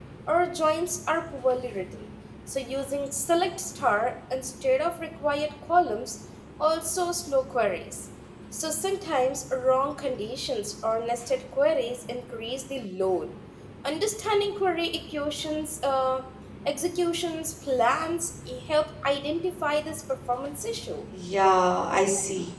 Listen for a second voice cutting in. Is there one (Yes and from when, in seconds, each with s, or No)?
No